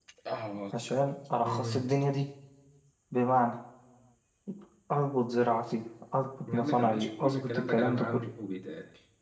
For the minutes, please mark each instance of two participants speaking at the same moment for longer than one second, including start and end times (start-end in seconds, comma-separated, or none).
6.5-8.2